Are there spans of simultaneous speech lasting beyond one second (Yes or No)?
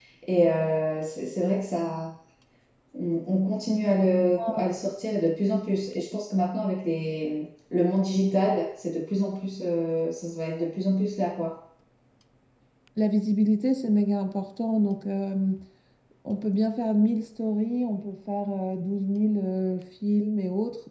No